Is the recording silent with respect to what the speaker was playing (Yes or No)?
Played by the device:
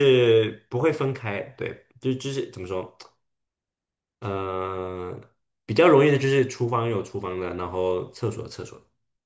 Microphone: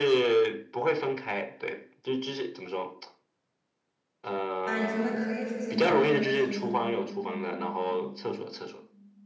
No